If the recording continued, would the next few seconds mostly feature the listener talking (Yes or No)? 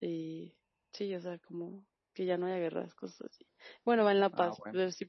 No